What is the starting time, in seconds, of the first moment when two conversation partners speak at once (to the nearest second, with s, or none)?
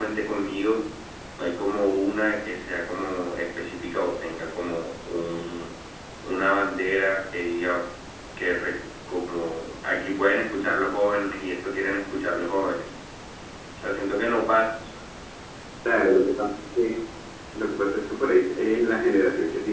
none